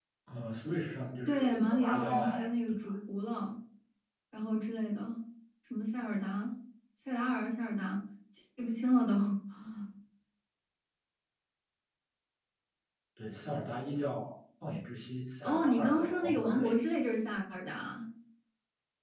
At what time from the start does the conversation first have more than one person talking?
1 s

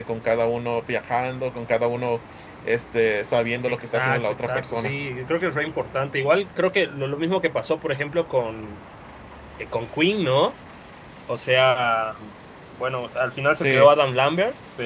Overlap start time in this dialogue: 4 s

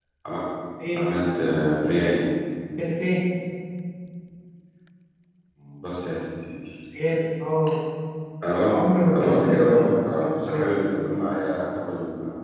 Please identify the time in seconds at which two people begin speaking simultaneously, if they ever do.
9 s

